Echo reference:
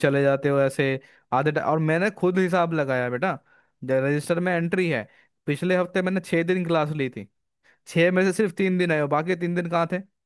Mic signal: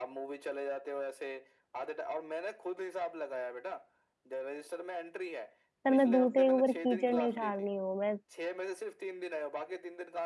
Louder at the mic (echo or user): user